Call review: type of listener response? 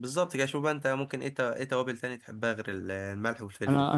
taking over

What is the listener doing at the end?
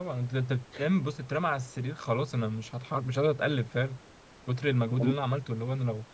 listening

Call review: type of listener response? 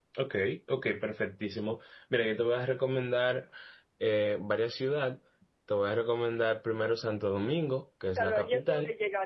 taking over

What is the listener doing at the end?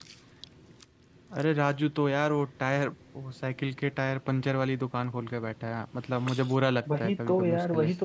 taking over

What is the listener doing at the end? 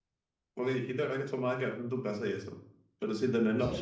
listening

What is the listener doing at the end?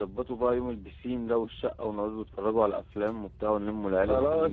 taking over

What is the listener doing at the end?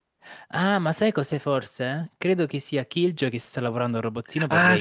taking over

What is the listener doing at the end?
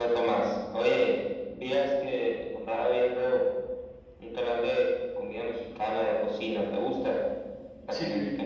taking over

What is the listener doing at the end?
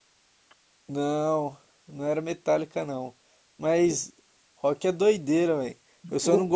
listening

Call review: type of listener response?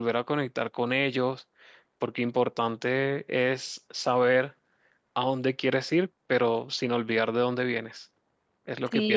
taking over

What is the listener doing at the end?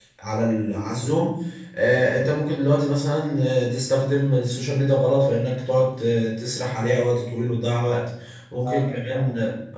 listening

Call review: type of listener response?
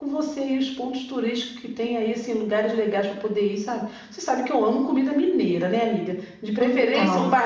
listening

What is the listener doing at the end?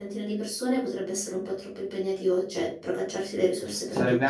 taking over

